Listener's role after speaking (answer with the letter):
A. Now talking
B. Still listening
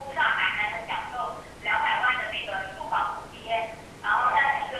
A